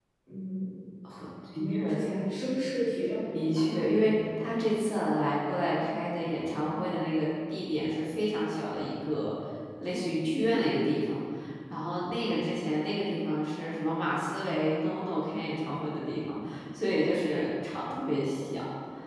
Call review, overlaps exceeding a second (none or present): present